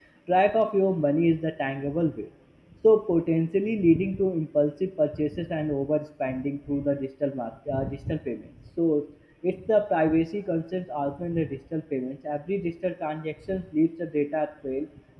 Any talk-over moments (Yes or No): No